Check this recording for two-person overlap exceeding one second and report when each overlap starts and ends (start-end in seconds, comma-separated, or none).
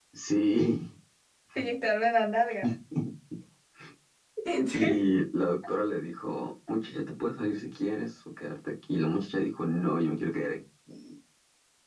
none